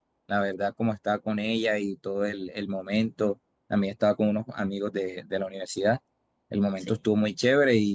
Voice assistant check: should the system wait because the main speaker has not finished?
Yes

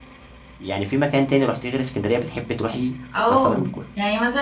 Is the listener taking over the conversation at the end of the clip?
Yes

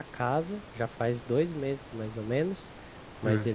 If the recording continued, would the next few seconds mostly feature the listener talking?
No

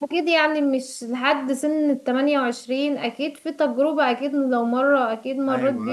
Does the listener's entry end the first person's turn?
Yes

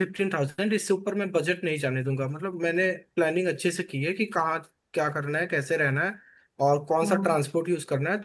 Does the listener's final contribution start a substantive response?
No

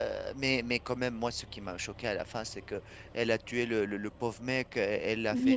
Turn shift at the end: No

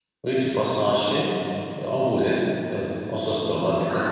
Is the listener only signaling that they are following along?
No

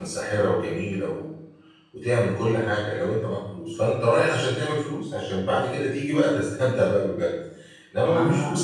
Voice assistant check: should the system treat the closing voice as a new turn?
No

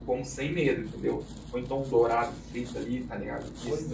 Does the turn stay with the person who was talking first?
No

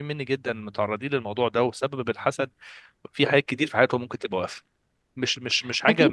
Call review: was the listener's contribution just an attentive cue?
No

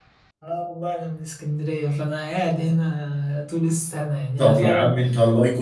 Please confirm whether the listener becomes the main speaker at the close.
Yes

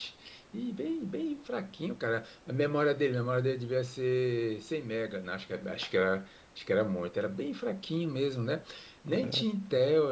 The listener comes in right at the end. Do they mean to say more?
No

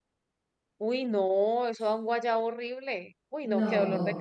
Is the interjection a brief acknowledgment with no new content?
Yes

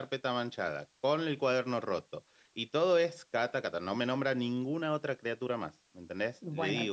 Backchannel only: No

